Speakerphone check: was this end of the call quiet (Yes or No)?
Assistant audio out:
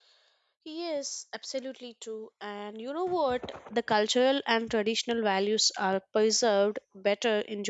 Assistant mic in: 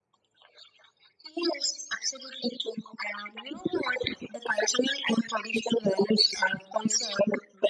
Yes